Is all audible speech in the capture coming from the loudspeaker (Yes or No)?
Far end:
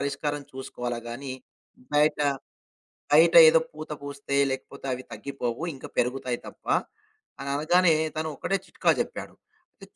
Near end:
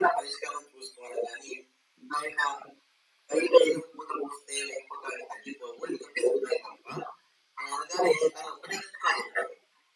Yes